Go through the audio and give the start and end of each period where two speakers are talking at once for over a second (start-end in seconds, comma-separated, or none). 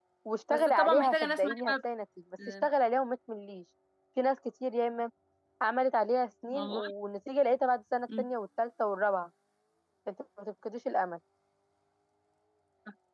0.5-1.7